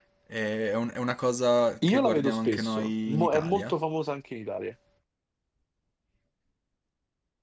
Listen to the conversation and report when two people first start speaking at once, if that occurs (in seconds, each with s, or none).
1.8 s